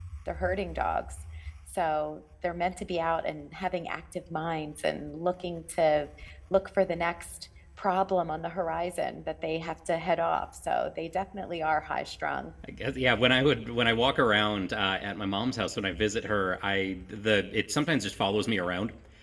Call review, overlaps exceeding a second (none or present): none